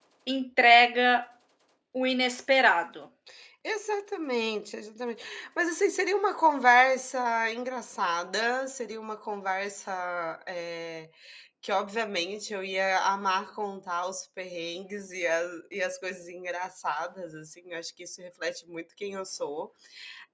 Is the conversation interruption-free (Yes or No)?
Yes